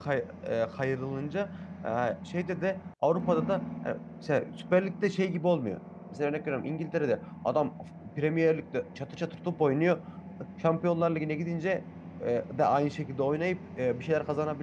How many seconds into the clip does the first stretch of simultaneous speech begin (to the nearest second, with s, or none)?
none